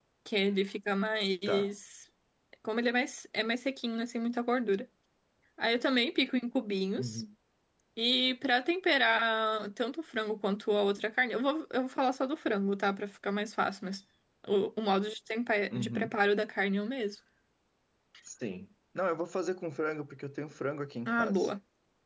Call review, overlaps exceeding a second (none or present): none